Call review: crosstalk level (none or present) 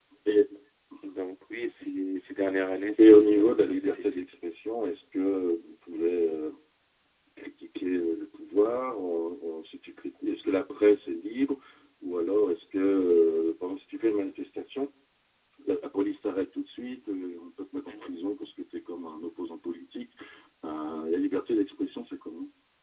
present